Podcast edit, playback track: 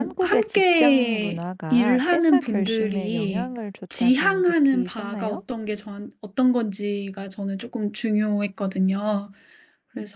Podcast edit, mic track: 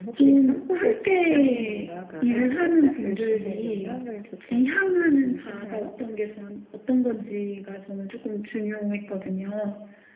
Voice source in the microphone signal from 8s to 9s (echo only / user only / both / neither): echo only